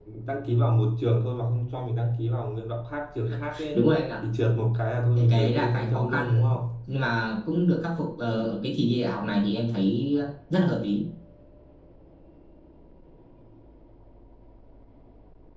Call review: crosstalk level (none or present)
present